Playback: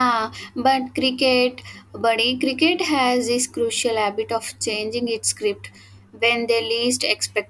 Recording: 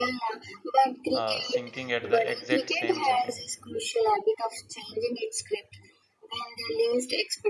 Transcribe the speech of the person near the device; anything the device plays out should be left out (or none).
uh, sinking at the exact same second.